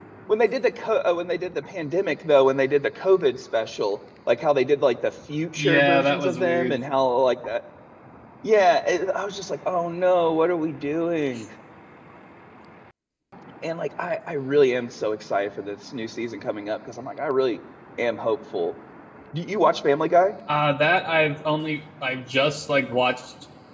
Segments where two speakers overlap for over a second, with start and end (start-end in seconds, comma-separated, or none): 5.6-6.8